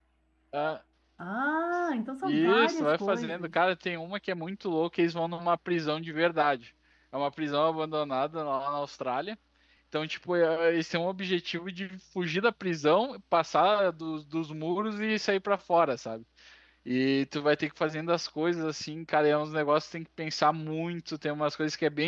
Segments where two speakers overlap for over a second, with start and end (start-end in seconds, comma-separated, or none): 2.3-3.5